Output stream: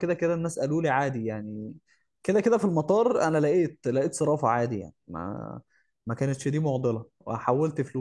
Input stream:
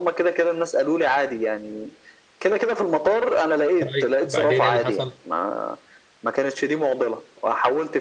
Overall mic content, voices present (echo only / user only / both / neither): both